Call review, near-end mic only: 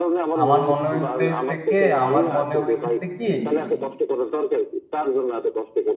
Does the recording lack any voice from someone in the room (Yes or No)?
No